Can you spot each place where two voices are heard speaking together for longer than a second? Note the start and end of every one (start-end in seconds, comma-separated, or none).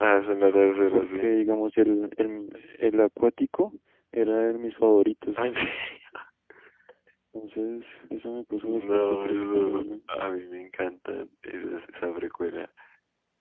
8.6-9.9